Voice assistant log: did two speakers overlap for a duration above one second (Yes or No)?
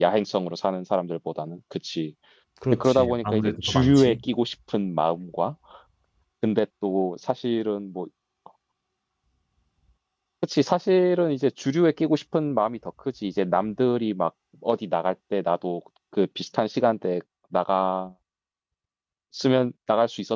Yes